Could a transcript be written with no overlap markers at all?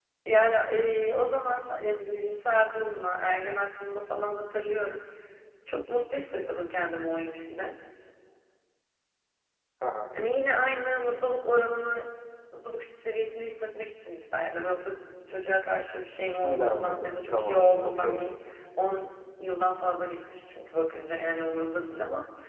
No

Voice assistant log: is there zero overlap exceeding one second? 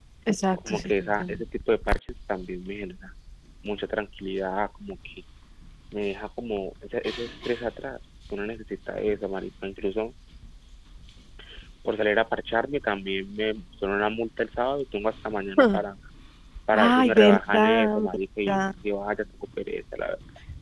No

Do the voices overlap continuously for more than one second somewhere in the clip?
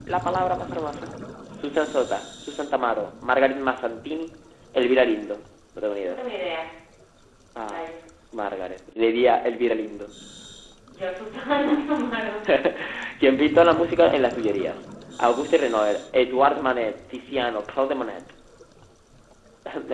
No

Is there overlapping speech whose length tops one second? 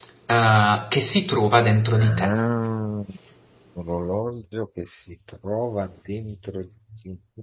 No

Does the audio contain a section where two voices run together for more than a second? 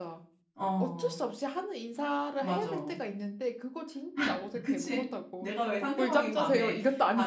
Yes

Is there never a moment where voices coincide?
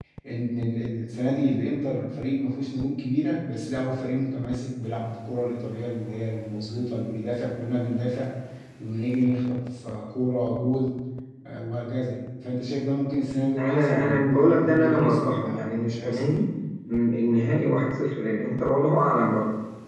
No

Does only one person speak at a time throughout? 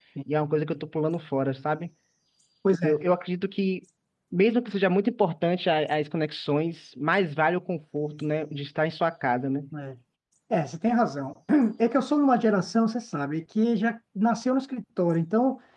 Yes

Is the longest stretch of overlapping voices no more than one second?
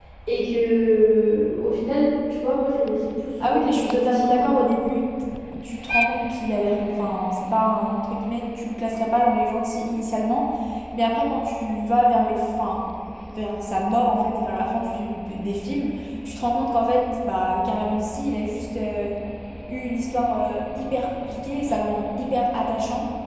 No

